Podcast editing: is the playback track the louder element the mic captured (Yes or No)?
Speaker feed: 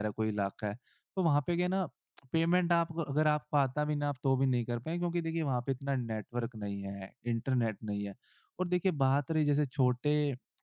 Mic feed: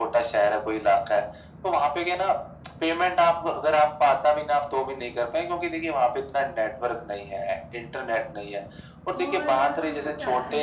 Yes